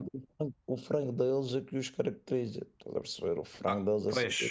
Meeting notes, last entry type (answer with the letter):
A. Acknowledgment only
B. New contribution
B